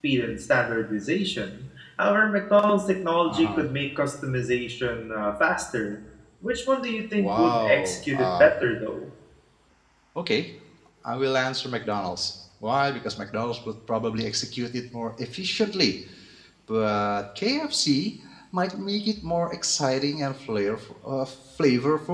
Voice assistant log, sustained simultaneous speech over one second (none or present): present